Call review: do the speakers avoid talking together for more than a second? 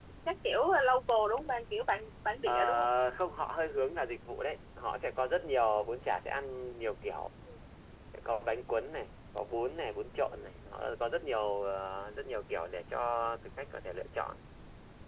Yes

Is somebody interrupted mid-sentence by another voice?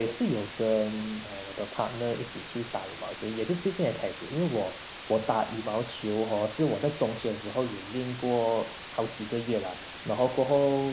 No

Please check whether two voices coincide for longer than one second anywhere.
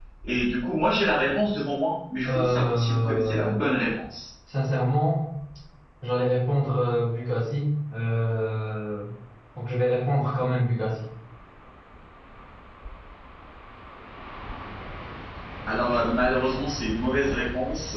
Yes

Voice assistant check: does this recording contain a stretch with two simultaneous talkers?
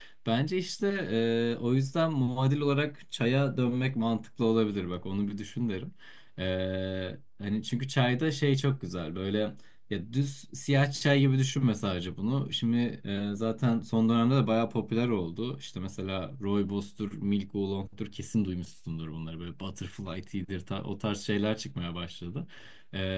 No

